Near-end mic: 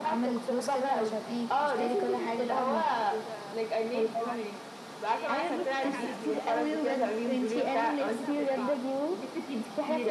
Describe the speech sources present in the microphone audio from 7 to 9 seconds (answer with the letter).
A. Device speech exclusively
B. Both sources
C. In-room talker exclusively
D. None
B